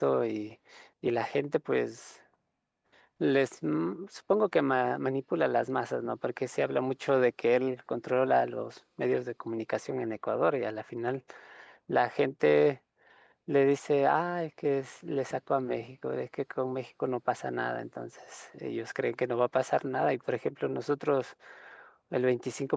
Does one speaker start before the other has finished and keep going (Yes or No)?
No